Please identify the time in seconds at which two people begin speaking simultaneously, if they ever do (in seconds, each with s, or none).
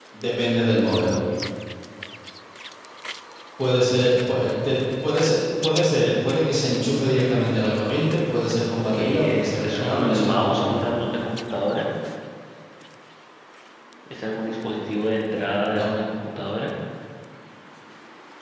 8.7 s